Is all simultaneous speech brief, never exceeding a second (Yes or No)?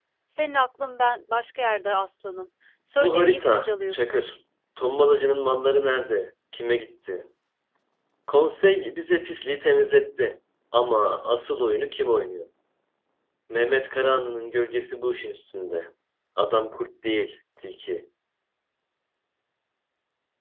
No